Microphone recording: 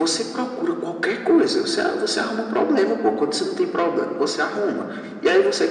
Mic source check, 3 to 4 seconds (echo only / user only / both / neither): echo only